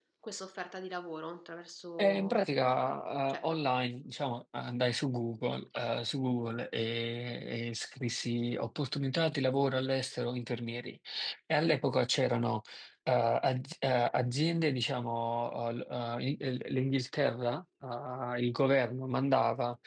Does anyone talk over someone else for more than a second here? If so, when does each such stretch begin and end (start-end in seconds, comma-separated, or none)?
none